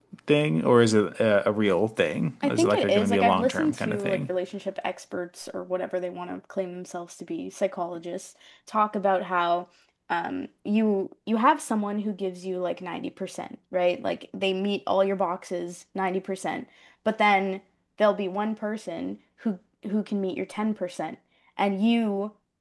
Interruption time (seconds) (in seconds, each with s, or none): 2.4 s